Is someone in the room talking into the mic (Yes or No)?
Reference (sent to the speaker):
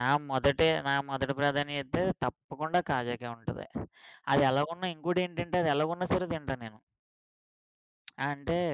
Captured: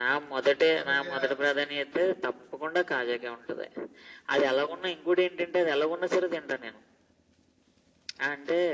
Yes